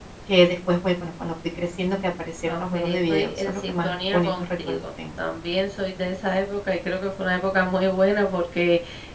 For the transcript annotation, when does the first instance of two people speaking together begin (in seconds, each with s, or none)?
2.5 s